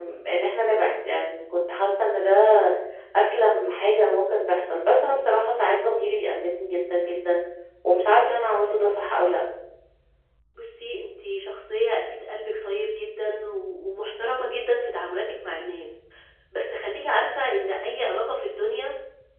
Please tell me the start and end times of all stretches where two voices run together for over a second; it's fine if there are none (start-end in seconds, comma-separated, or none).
none